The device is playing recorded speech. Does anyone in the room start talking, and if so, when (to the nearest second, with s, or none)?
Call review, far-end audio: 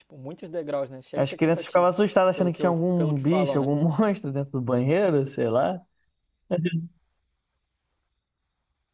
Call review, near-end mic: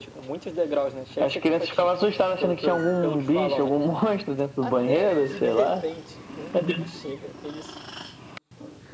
5 s